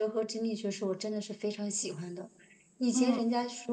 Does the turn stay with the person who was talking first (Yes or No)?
Yes